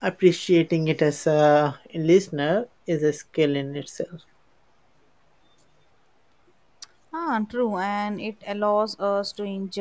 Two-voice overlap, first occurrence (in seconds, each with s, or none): none